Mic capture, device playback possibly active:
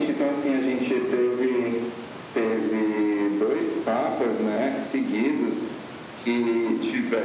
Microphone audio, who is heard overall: echo only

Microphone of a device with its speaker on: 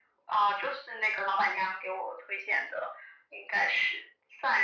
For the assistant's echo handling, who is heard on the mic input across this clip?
echo only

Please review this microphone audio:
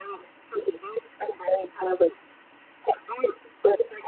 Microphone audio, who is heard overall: echo only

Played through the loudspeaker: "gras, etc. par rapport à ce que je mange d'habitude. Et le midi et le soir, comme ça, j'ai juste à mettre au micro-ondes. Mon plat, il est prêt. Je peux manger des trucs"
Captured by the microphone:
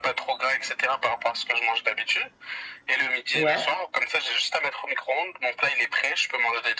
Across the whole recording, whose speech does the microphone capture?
both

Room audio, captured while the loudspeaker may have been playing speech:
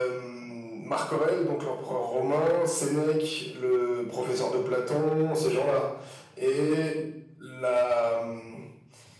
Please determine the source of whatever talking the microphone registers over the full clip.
echo only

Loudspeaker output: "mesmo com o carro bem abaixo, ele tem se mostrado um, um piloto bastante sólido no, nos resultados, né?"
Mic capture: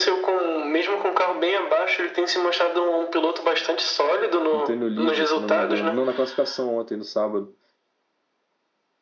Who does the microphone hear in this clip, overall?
both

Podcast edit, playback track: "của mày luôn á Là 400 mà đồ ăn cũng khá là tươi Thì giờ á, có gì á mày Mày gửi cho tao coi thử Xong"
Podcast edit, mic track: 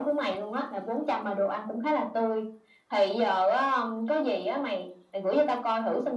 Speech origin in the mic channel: echo only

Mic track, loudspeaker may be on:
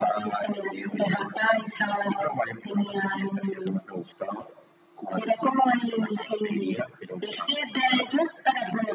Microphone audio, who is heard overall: echo only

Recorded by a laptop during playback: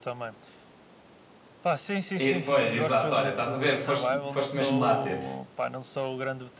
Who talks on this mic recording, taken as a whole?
both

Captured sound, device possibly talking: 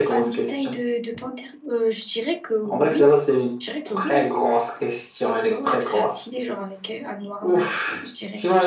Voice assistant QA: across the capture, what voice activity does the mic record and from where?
both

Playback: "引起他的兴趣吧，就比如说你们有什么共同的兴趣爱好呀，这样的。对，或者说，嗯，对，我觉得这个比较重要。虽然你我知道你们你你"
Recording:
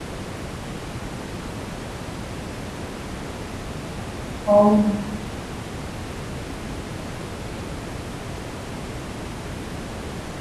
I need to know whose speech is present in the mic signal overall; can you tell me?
user only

